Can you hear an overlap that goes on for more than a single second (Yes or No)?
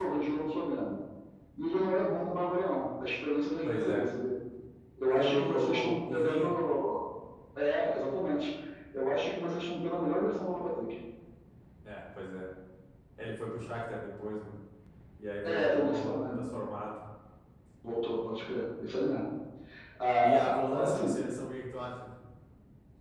Yes